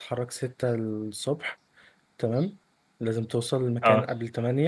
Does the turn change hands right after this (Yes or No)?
No